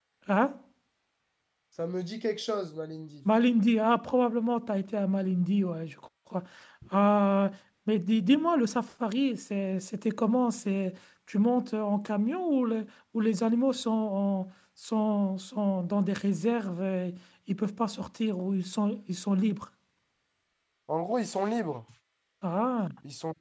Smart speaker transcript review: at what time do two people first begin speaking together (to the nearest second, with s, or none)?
none